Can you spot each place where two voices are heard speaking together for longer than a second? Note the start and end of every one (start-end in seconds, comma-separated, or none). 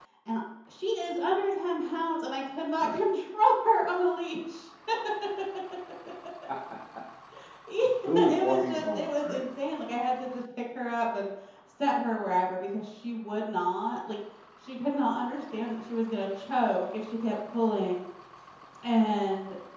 8.2-9.4